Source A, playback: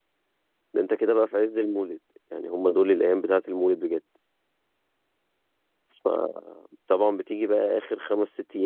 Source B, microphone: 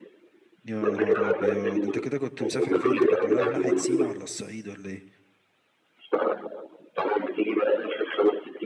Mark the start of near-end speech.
0.6 s

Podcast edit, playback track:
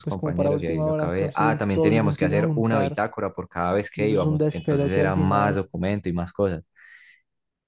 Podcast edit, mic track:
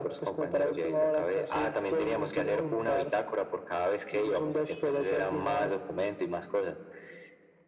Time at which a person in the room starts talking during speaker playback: none

